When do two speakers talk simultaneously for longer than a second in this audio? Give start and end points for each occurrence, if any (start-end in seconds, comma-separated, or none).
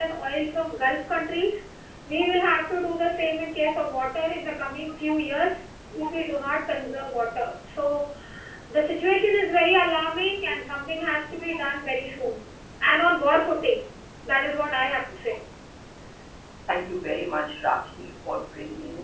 none